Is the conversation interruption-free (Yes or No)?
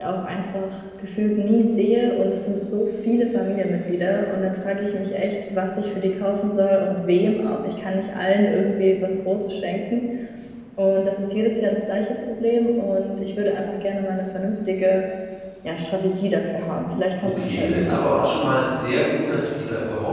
No